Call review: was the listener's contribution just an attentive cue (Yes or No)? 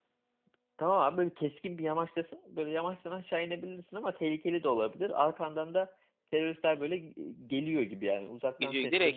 No